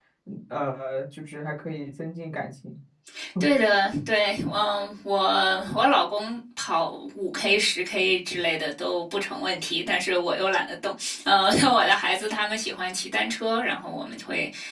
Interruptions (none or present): none